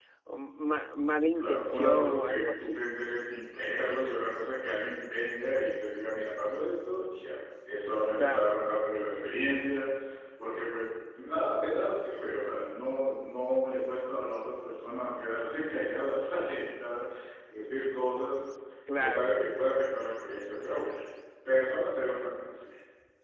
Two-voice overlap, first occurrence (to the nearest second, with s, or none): 1 s